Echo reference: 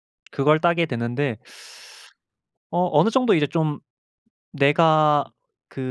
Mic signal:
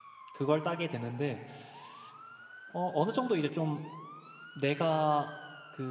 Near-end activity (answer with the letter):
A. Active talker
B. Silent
B